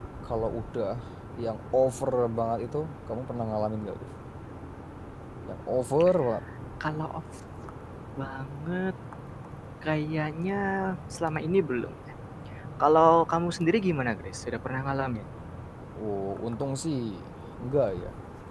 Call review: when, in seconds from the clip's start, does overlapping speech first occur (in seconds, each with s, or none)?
none